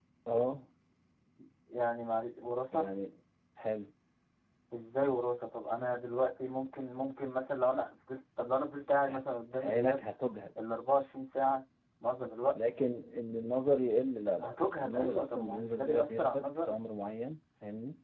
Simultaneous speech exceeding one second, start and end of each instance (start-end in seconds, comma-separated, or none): 14.4-16.8